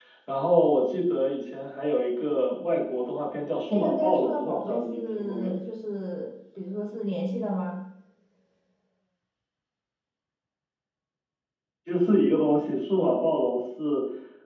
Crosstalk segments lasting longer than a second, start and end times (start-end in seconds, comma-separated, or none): 3.7-5.5